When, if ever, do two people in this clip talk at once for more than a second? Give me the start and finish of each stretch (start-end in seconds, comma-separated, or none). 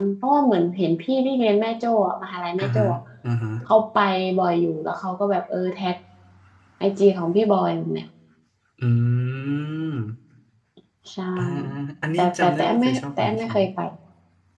12.2-13.6